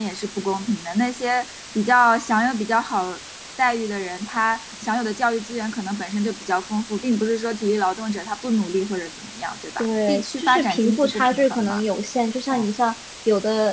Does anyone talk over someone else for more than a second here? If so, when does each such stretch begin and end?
9.8-11.8

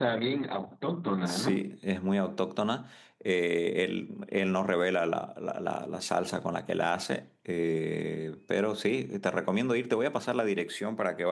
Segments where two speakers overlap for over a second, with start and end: none

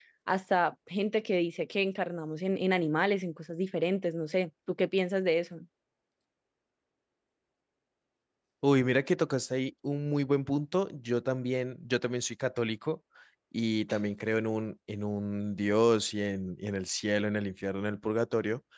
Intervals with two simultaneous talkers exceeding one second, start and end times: none

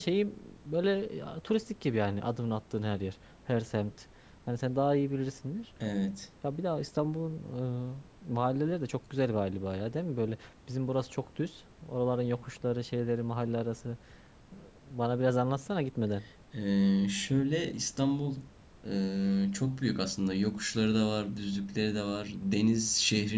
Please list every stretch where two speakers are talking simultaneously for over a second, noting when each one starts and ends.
none

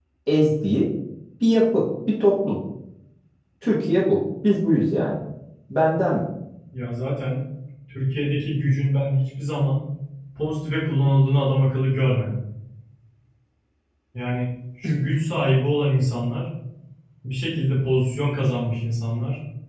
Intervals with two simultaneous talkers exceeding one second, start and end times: none

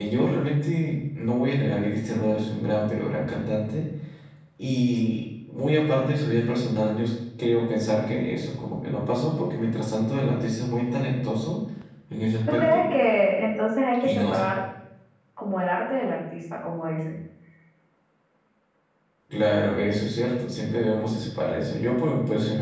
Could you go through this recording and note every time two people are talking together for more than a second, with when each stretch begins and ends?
none

